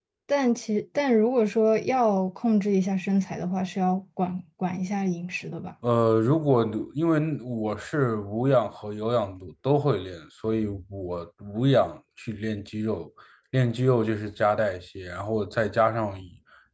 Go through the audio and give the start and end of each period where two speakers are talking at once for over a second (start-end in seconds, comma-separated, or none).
none